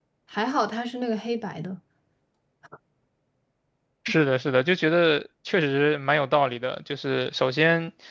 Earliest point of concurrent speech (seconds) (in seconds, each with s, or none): none